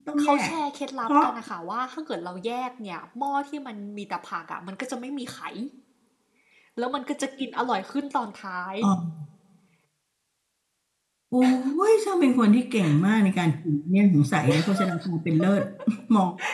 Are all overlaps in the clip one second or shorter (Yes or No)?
Yes